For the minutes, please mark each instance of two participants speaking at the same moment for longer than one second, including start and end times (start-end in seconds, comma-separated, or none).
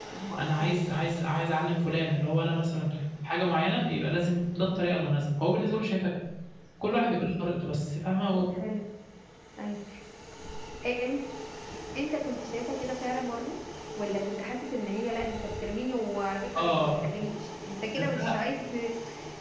none